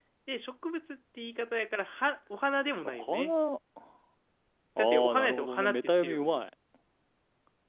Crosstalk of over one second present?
Yes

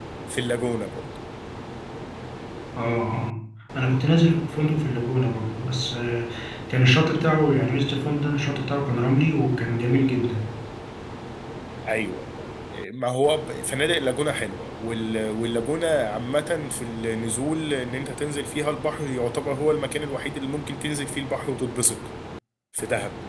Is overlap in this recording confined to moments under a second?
Yes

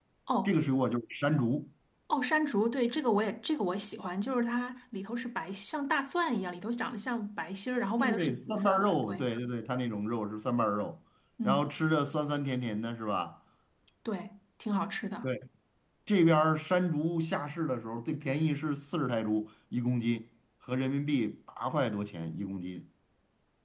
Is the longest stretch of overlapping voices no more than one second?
No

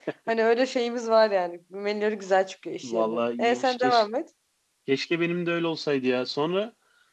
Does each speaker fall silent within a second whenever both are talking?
No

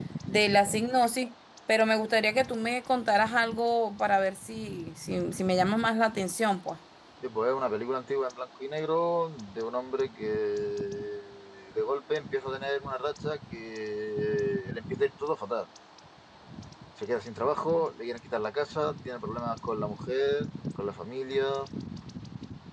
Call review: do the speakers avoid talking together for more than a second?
Yes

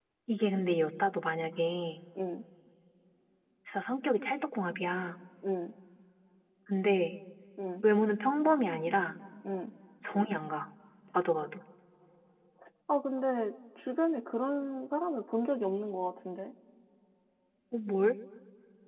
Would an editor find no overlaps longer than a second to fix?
Yes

